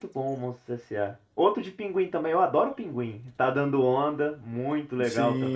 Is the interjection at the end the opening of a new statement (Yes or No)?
Yes